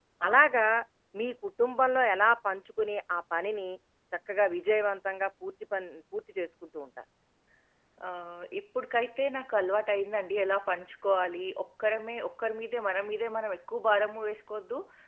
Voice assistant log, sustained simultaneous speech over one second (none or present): none